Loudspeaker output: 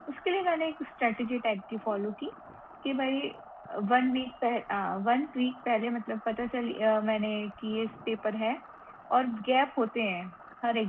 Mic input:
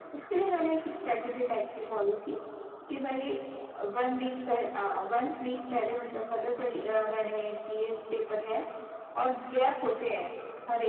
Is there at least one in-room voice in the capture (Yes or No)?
No